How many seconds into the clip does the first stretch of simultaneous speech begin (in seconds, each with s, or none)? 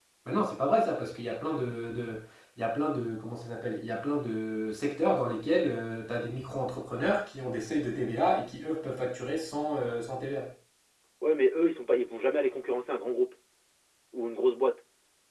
none